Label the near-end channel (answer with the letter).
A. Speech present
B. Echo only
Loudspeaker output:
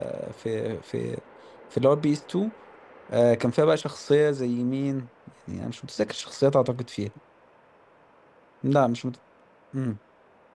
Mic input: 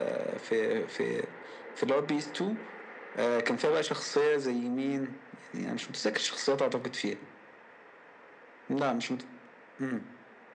B